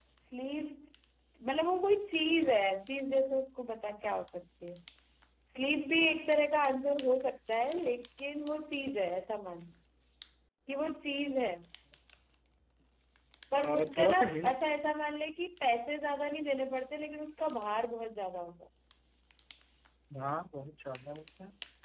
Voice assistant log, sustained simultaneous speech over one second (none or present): present